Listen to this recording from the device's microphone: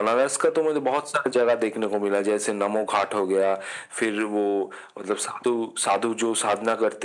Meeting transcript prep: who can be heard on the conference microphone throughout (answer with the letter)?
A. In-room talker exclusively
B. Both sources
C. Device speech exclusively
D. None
C